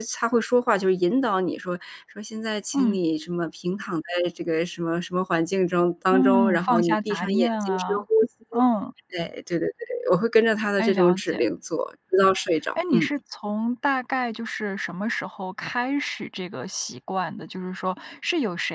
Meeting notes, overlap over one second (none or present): present